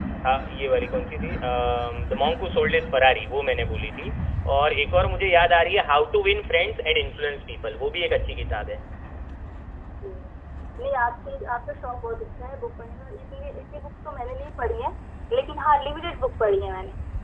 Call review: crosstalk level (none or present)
none